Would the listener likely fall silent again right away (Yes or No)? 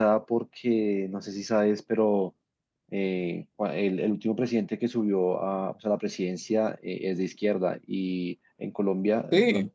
Yes